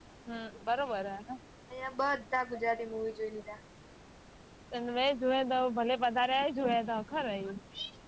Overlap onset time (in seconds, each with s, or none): none